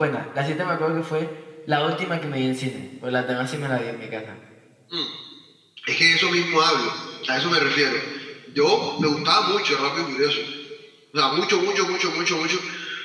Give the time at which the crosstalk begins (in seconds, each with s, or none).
none